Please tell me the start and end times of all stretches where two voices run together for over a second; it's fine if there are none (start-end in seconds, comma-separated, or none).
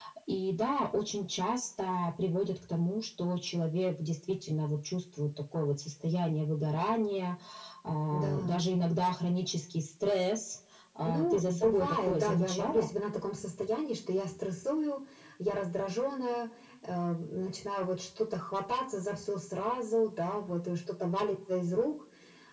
11.0-12.9